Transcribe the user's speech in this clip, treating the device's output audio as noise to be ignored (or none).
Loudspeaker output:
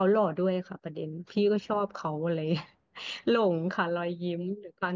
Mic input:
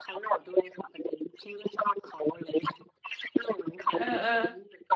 เออเออ